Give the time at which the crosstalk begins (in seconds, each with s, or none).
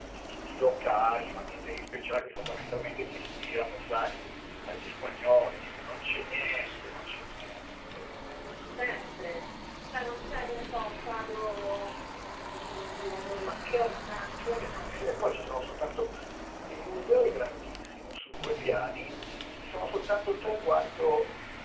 13.4 s